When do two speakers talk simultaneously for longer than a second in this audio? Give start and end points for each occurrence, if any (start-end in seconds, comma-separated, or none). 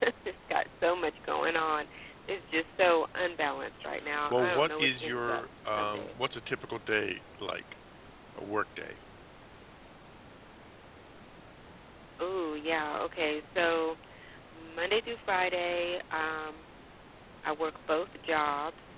4.3-6.2